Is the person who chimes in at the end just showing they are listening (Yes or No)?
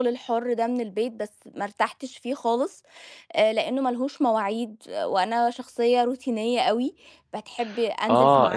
No